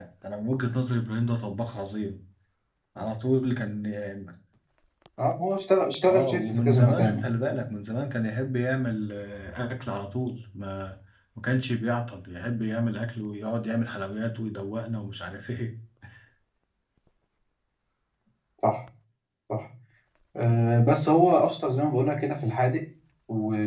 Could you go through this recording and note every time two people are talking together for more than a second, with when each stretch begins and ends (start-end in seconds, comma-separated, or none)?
6.1-7.3